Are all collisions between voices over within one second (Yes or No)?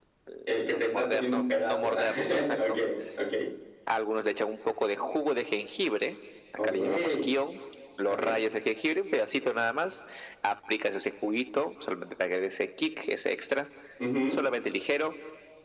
No